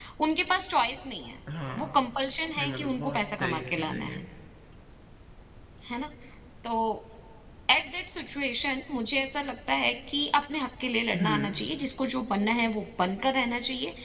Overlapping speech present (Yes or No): Yes